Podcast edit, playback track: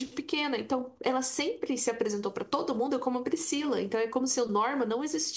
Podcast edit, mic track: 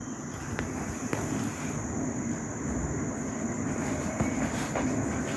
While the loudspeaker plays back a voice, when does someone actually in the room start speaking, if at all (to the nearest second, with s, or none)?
none